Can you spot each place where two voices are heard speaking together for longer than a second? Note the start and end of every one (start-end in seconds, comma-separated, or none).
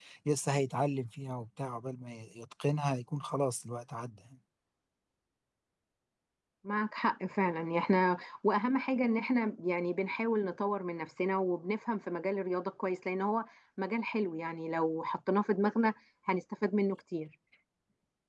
none